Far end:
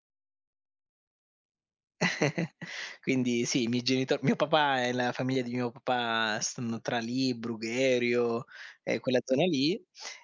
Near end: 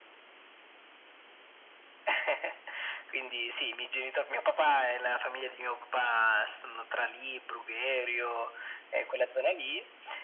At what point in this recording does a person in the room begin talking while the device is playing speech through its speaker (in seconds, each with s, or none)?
none